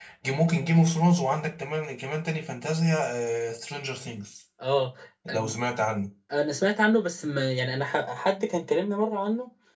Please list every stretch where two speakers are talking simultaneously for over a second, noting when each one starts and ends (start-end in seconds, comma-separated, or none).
none